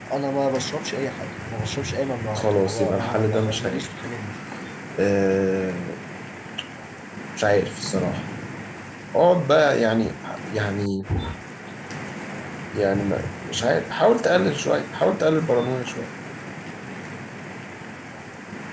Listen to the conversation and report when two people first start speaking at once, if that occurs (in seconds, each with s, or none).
2.4 s